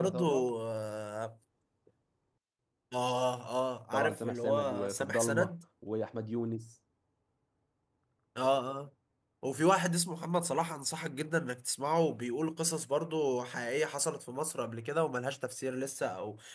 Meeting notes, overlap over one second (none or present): present